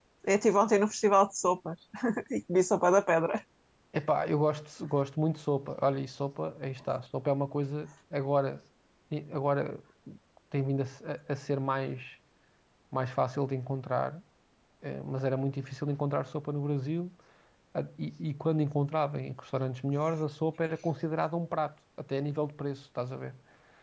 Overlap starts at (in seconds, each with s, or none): none